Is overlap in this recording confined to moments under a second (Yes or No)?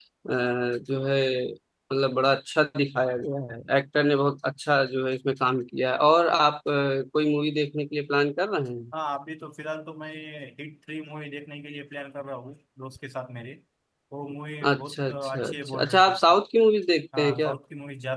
No